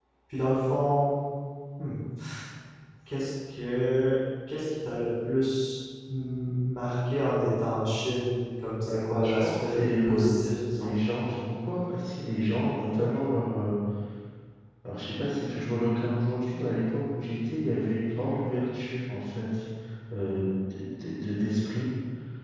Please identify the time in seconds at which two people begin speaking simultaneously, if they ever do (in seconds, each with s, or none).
8.9 s